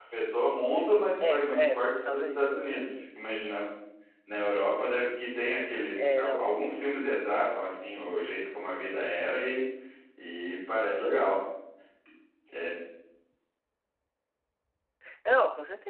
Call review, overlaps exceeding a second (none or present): present